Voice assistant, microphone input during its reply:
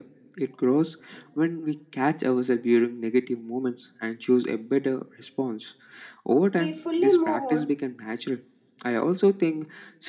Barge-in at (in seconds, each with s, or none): 6.5 s